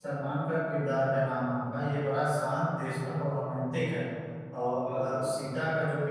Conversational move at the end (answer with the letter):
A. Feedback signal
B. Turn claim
A